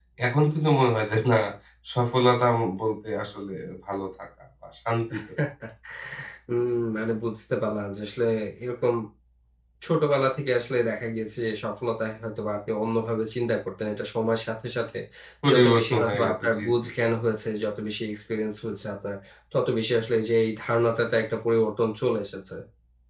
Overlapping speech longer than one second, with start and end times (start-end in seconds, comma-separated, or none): 15.5-16.7